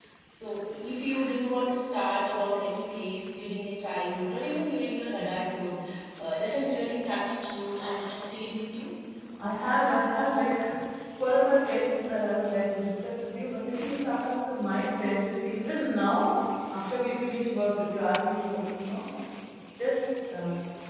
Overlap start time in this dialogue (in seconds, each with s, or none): none